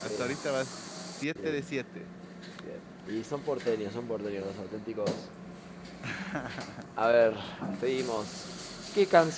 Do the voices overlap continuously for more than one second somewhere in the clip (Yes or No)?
No